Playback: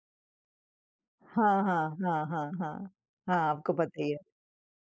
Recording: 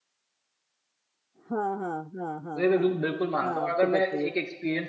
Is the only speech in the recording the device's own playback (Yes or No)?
No